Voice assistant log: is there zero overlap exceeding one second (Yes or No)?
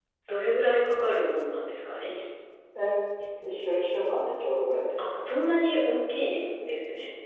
Yes